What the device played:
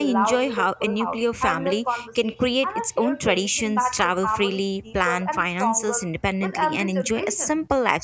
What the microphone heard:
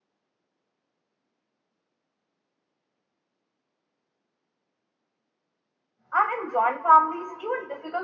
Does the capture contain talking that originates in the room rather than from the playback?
Yes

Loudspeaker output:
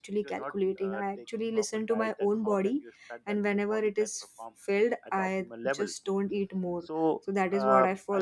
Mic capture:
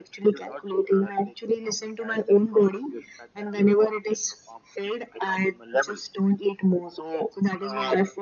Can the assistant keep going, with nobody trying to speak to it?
Yes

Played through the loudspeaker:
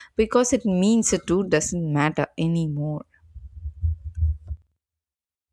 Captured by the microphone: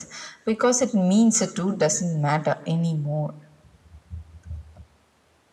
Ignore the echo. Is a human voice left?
No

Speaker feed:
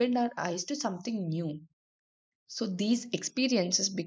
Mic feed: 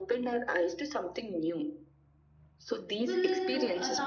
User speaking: Yes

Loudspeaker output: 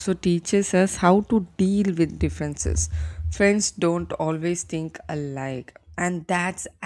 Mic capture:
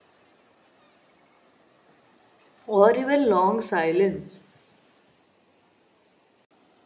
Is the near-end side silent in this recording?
No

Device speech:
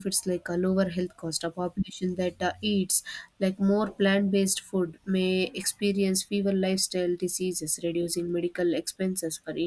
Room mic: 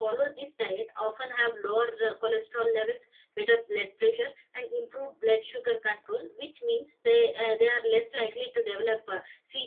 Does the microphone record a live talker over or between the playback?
Yes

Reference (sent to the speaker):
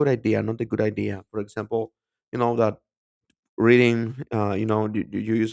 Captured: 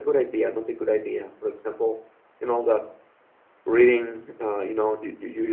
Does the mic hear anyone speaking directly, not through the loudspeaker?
No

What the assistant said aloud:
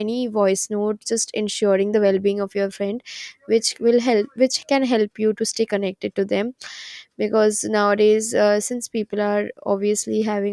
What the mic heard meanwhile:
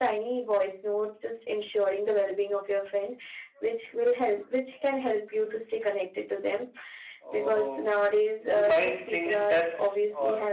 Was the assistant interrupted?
Yes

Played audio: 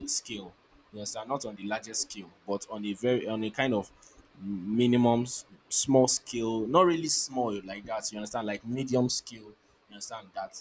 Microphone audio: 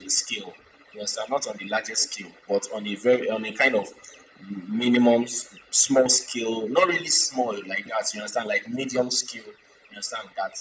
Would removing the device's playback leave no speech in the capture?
Yes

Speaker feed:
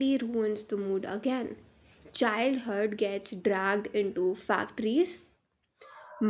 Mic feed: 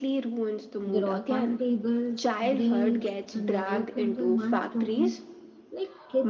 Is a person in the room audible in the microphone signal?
Yes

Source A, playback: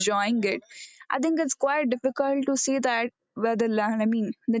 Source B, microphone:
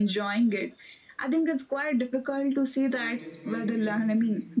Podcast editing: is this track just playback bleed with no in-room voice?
No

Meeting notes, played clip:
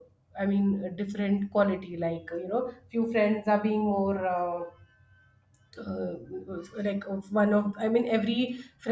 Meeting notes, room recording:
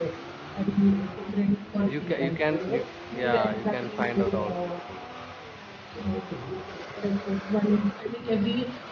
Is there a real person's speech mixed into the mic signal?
Yes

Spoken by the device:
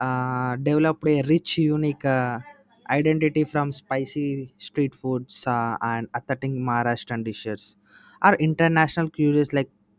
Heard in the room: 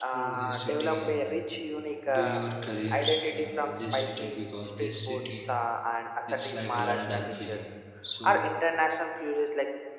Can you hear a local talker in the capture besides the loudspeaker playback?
Yes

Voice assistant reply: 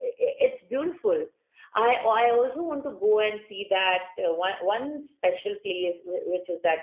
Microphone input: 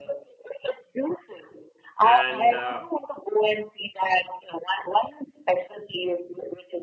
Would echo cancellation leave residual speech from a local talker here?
Yes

